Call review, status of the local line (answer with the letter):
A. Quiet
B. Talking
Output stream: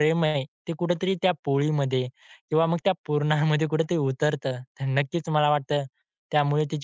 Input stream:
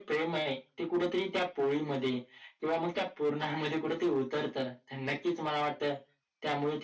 A